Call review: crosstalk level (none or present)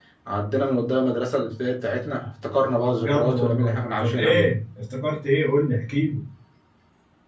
present